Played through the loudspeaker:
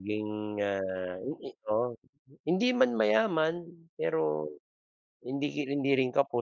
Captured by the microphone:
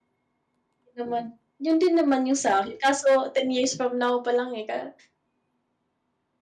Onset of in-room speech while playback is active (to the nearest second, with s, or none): 1 s